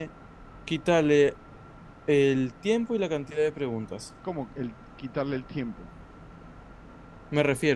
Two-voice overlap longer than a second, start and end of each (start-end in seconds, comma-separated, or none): none